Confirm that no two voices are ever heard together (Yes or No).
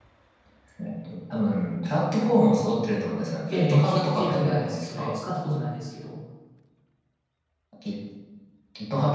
No